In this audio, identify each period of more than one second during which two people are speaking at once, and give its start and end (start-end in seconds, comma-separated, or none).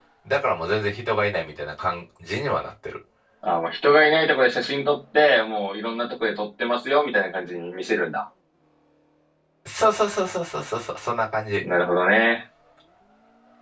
none